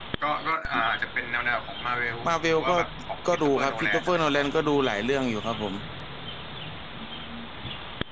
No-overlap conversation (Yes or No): No